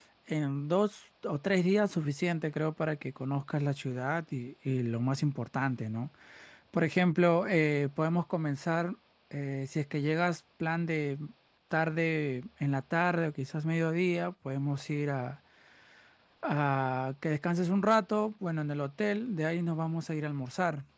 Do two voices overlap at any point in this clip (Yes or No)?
No